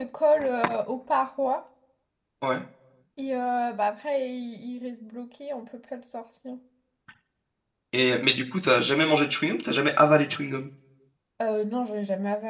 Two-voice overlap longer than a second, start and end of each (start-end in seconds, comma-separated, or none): none